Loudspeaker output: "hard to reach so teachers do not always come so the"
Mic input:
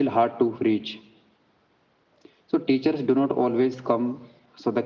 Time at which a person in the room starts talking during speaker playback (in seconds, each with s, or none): none